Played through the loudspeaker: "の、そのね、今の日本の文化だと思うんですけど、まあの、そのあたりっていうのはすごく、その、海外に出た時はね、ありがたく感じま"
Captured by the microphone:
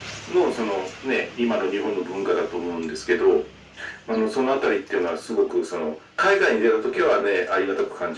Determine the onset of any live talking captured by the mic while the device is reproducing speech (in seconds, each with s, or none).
none